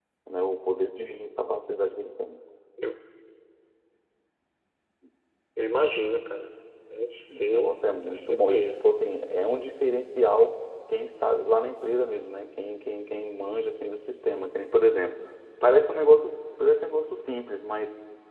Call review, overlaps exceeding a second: present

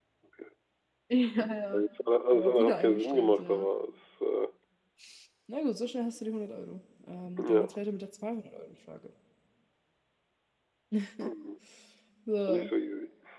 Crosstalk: present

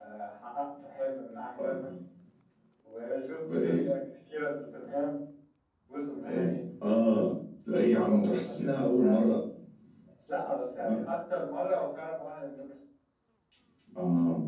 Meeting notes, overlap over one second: present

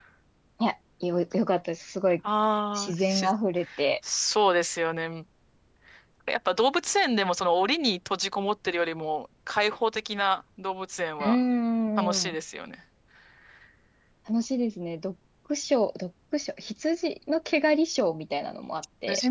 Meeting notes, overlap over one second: none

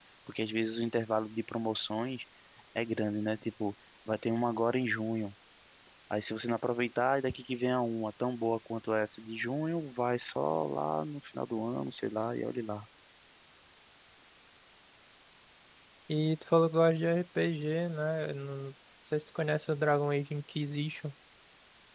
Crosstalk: none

